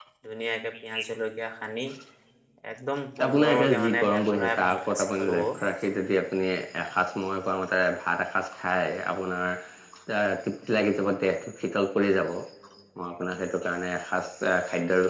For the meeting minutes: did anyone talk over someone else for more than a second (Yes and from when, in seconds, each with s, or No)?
Yes, from 3.3 s